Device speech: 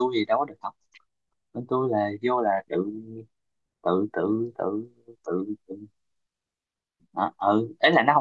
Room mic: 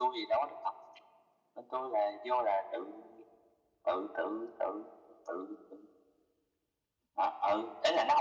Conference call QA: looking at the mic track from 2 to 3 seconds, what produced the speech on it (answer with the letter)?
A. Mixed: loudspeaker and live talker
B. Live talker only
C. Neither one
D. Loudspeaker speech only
D